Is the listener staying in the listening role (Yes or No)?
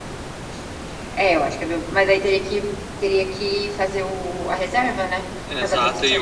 No